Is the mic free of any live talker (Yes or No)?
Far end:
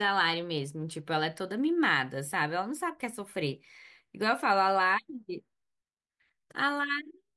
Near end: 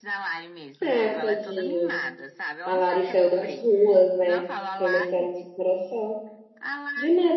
No